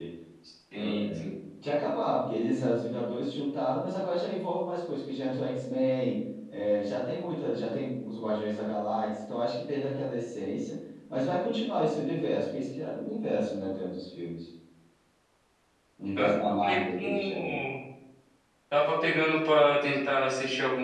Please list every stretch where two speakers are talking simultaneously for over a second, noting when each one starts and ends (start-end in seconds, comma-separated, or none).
16.2-17.6